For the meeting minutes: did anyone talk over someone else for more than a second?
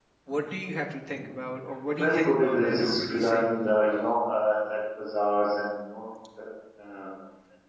Yes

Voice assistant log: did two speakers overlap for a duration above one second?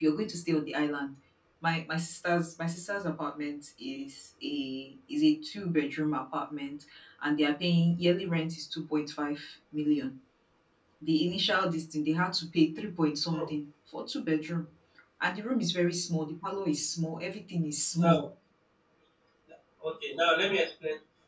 No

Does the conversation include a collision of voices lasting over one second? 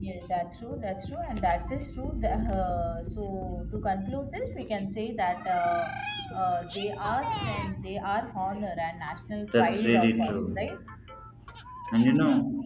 Yes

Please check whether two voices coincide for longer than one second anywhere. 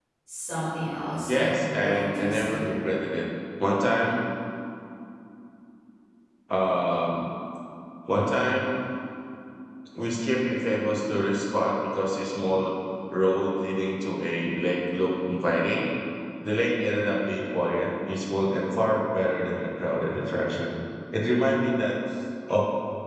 Yes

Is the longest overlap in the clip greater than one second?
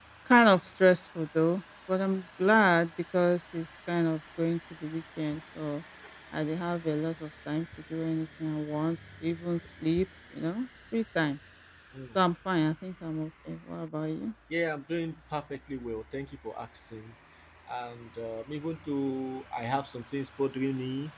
No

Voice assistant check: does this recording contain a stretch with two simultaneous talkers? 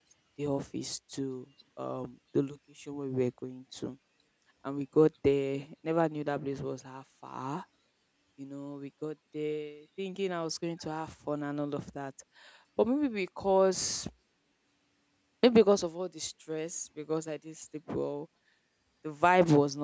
No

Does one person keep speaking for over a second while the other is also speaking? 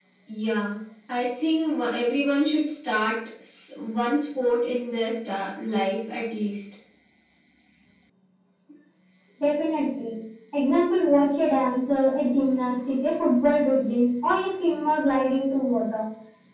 No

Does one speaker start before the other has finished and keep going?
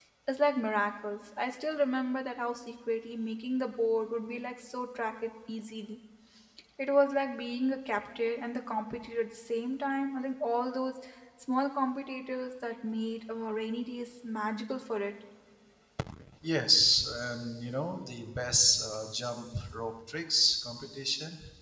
No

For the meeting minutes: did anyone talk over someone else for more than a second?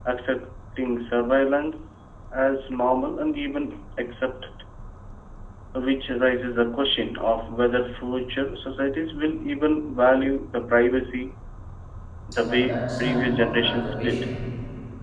Yes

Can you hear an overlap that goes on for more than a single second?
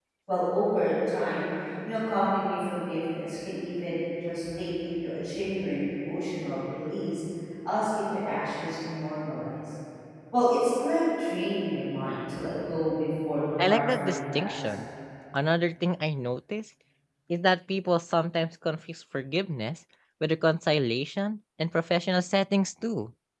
Yes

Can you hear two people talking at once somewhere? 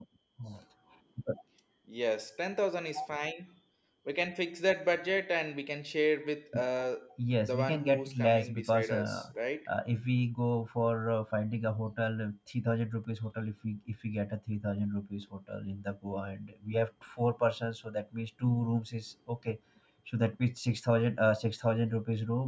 Yes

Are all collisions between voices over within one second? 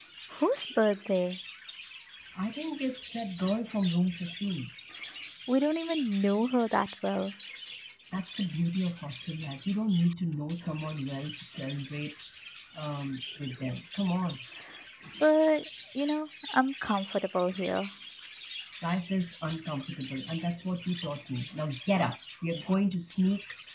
Yes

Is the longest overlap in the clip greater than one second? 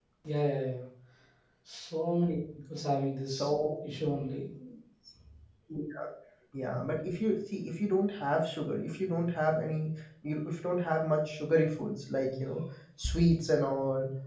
No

